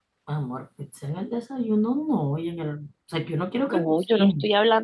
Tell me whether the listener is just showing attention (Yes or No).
No